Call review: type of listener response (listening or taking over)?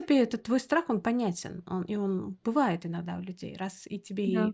listening